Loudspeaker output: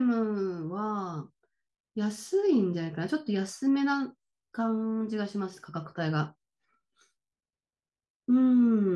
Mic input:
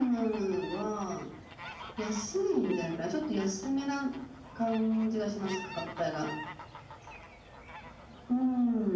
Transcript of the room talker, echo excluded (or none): none